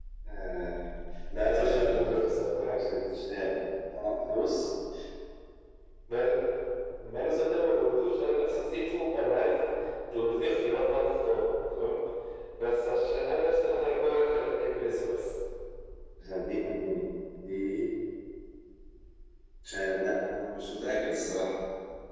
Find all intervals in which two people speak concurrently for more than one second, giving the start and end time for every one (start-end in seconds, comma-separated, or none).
1.4-2.8